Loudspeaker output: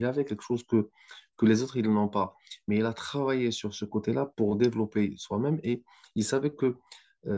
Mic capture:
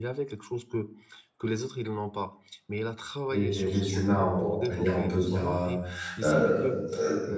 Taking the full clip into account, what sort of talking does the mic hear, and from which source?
both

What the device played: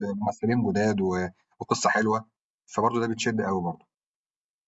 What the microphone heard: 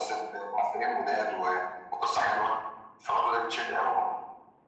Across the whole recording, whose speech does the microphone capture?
echo only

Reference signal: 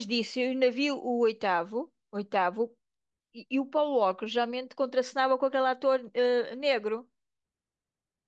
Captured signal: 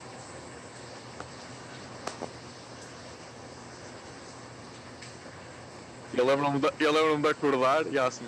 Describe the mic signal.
user only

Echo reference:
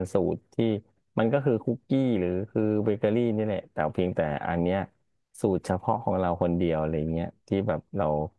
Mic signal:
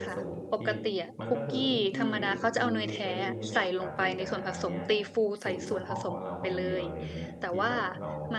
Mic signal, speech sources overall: both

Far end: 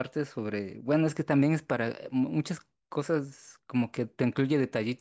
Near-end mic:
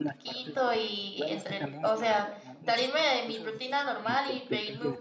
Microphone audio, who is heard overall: both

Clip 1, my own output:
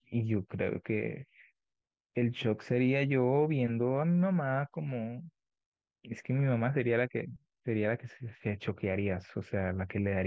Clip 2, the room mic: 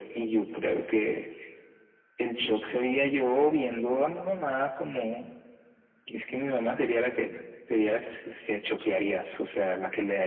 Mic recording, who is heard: echo only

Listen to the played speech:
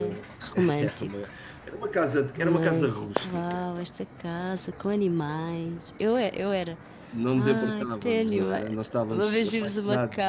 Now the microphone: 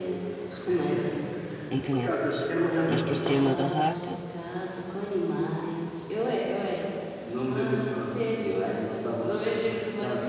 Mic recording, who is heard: both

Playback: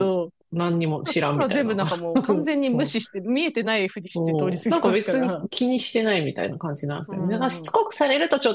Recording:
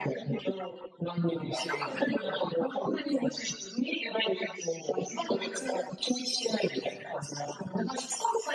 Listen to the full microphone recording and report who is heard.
echo only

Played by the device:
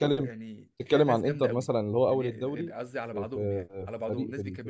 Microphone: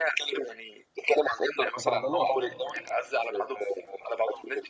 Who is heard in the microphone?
both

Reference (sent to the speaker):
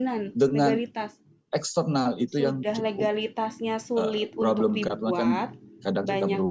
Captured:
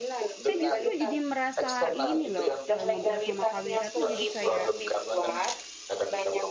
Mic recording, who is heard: both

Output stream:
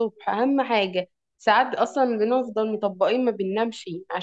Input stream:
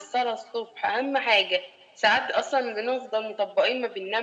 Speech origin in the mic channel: echo only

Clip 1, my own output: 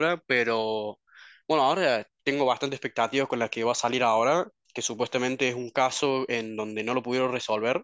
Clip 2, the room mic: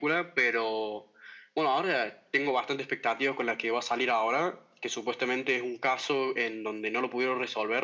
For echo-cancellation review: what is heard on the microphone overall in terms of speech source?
echo only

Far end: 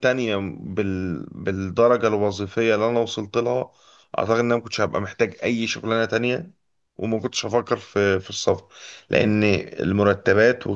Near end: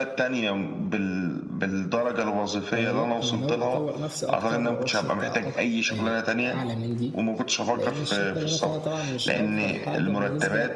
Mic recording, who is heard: both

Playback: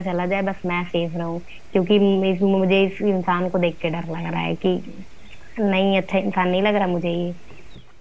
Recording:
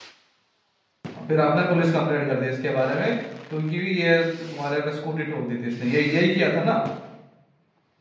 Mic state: user only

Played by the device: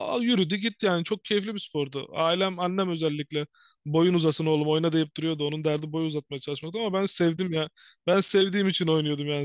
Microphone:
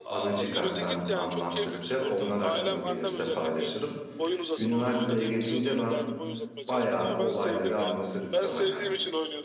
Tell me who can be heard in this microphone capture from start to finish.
both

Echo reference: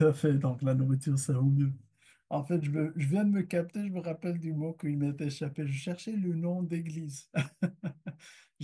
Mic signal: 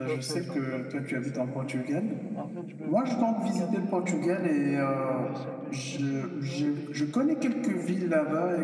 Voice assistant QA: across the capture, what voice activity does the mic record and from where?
both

